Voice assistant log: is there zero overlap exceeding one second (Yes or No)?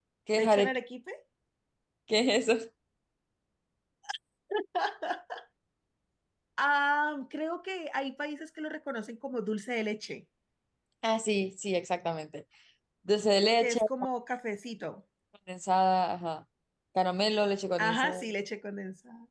Yes